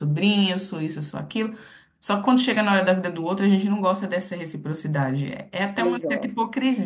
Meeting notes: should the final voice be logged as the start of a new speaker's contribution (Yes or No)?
No